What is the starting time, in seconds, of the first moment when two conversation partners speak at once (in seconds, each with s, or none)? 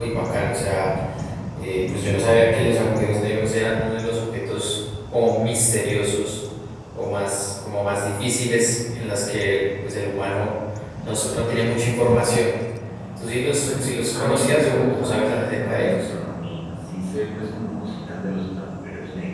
13.7 s